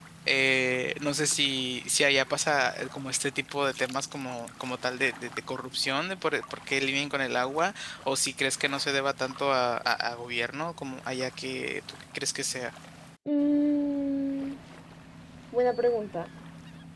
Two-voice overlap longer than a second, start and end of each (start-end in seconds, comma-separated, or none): none